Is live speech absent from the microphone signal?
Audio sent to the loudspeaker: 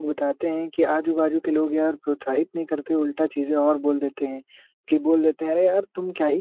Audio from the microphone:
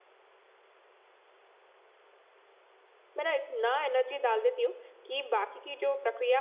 No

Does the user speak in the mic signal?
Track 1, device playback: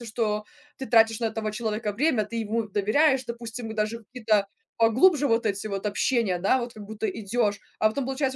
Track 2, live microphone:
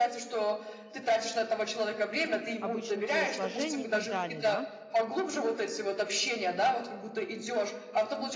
Yes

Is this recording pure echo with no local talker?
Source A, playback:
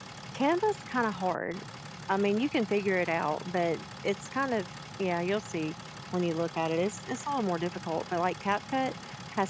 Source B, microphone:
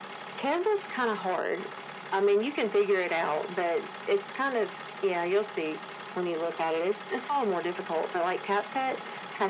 Yes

